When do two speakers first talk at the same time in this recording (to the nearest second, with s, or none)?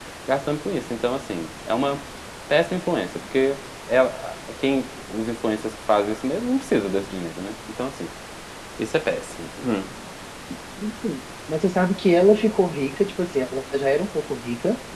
none